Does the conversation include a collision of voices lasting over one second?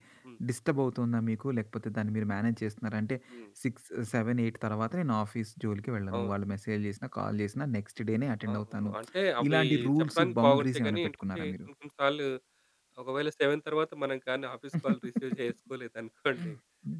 Yes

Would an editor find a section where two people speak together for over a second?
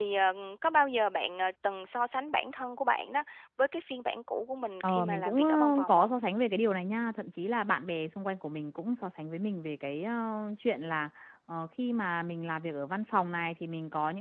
Yes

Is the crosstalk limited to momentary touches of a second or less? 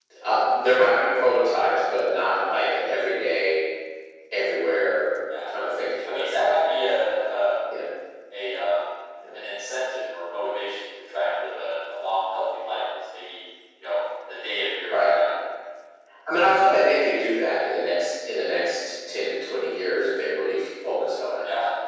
Yes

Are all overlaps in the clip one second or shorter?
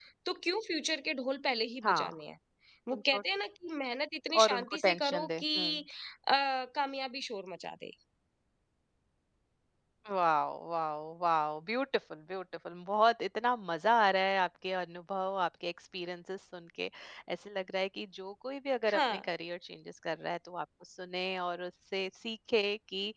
No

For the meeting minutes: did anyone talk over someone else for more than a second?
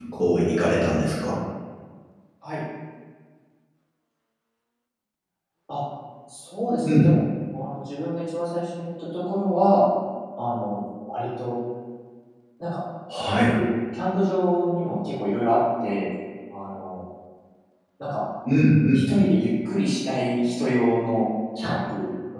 No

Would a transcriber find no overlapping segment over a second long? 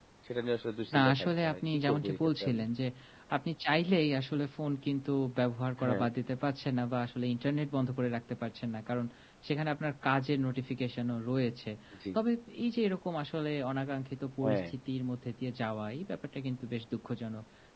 No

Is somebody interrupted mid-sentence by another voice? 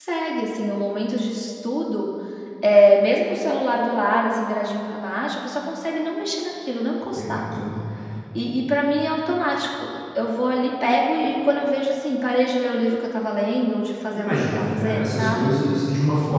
Yes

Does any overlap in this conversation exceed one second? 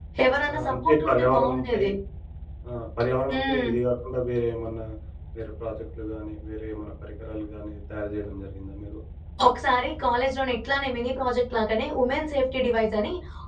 Yes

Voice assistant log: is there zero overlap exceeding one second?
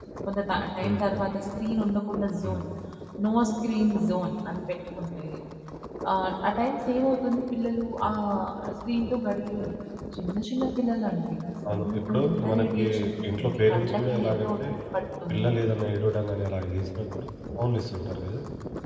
No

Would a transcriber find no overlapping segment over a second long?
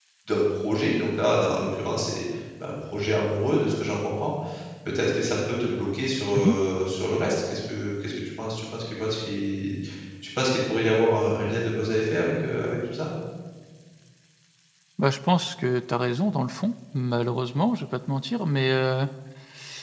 Yes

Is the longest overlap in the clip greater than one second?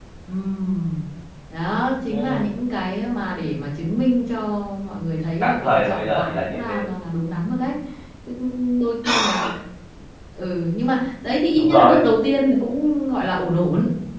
Yes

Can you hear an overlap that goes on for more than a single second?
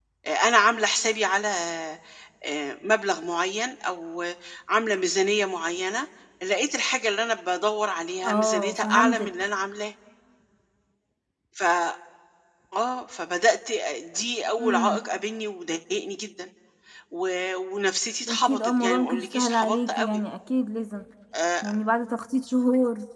Yes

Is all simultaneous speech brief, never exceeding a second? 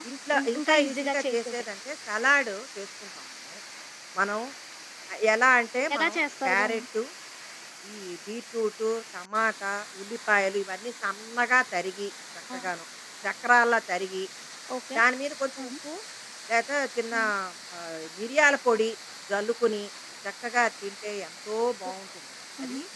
No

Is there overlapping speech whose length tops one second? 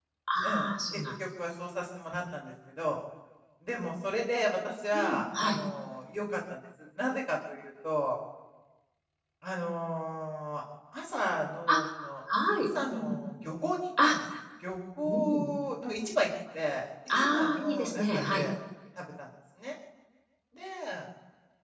Yes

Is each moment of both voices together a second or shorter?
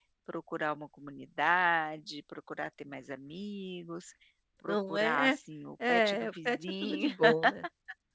No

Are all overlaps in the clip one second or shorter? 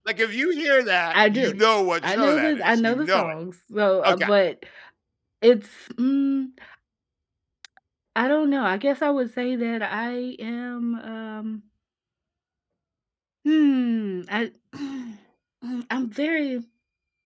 No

